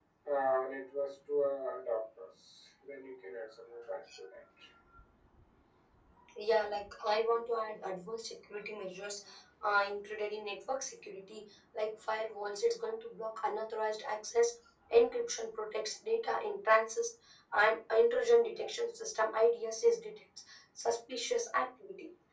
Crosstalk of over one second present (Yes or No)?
No